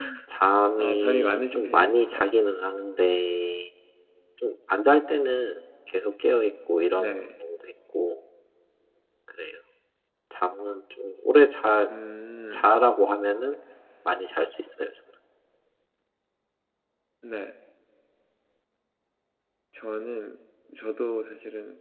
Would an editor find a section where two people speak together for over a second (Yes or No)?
Yes